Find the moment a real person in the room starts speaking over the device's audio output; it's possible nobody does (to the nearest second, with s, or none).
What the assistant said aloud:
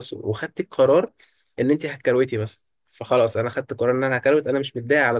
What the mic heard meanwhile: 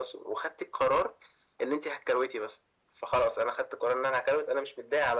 none